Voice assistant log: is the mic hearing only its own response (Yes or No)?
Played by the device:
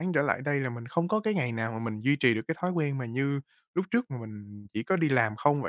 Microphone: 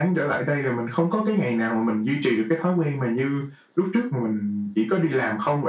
Yes